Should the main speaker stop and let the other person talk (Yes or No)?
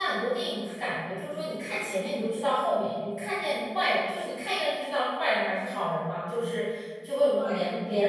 No